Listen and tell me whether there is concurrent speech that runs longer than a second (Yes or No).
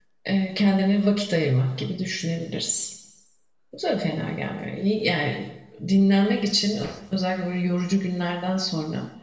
No